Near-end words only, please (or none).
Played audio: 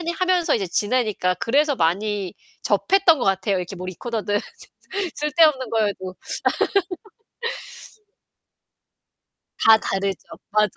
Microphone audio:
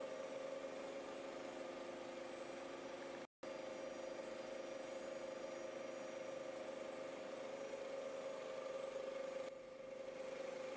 none